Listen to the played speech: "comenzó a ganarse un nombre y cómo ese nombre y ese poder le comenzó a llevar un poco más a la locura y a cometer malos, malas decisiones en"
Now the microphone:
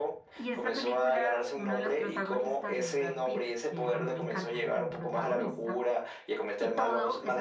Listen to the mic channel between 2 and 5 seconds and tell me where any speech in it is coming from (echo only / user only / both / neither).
both